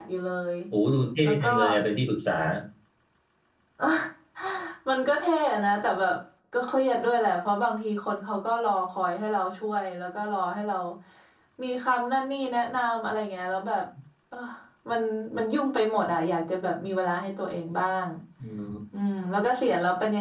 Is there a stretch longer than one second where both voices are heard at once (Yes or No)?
No